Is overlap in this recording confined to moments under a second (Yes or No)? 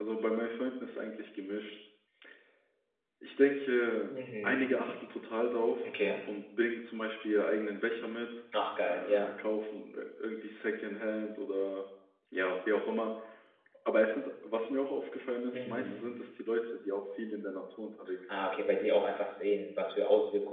Yes